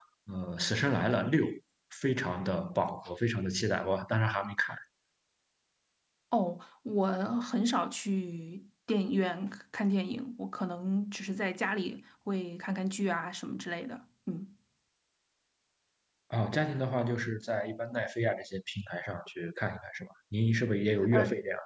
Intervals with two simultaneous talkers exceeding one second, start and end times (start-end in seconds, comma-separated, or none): none